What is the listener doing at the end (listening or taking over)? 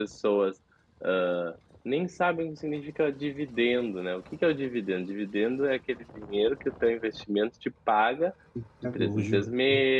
listening